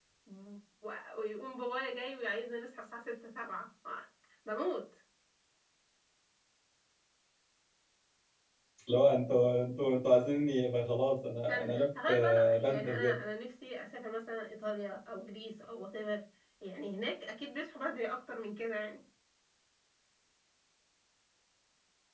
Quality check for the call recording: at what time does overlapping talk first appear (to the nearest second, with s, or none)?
11 s